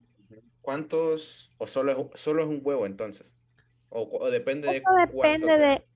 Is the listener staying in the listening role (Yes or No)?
No